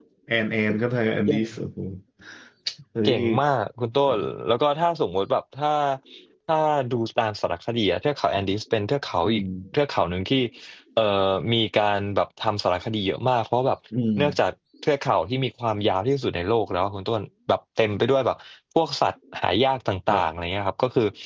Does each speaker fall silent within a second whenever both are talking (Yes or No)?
Yes